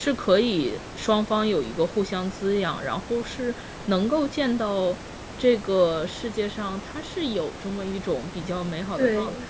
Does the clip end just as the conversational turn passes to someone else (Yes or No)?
Yes